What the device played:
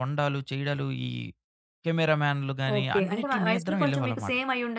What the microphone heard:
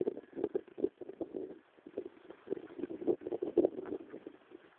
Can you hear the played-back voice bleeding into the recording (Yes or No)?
No